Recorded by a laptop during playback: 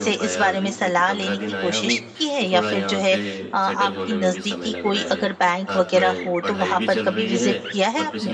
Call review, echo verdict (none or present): present